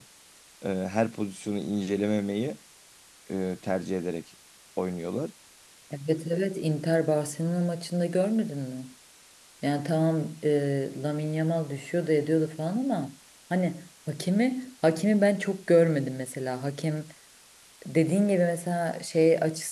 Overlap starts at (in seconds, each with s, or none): none